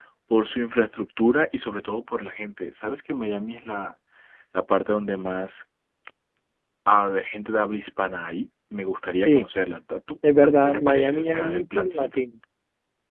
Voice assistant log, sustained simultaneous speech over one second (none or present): present